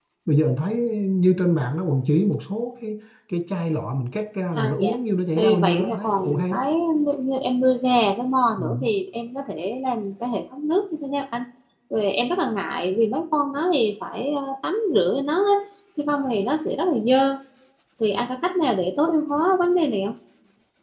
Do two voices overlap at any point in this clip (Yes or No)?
Yes